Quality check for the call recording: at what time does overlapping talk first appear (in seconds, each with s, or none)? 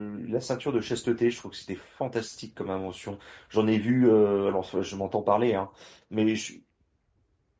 none